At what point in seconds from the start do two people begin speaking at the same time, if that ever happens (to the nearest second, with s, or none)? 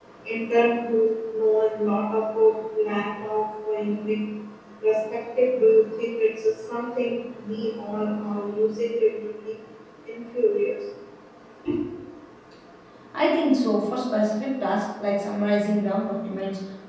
none